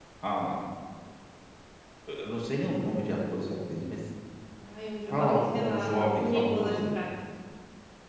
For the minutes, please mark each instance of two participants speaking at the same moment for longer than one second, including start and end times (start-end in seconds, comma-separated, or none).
5.1-7.0